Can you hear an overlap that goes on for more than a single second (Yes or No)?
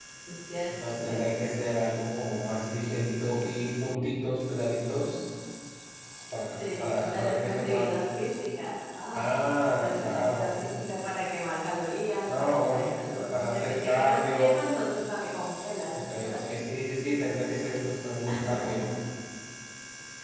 Yes